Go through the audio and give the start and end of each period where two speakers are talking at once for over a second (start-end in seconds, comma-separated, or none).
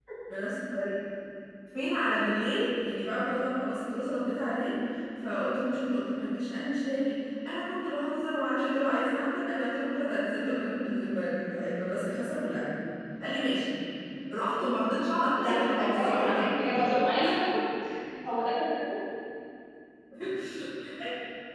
15.4-16.8